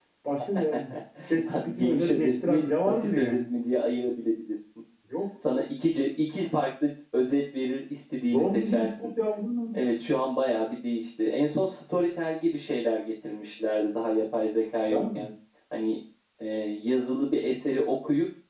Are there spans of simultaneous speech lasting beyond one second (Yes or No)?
Yes